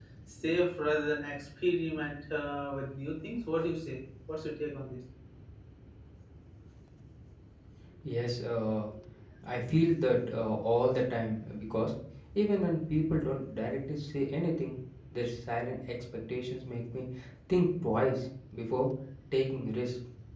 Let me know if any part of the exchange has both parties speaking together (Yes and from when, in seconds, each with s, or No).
No